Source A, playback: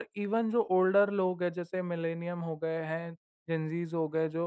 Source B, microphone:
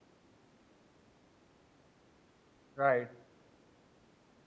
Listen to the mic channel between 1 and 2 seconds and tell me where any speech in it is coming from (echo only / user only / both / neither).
neither